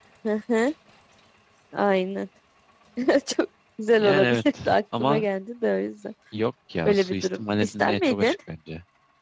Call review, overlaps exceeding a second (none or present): present